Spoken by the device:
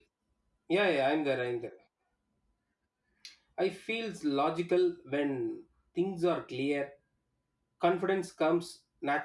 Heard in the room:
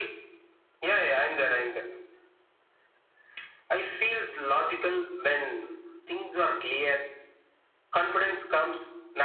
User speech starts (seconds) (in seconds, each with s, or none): none